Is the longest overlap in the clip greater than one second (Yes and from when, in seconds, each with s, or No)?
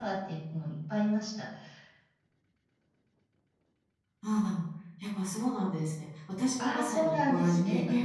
Yes, from 6.6 s